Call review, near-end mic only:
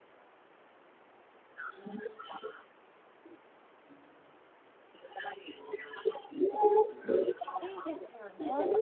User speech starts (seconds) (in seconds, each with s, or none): 7.6 s